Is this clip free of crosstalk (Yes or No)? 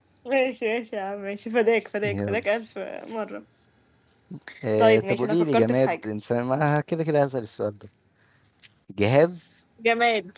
No